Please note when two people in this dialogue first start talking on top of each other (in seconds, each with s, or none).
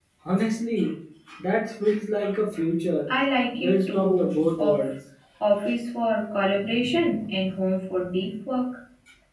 3.5 s